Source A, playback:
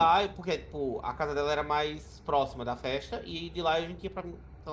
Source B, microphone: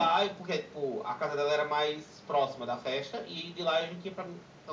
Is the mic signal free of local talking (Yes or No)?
Yes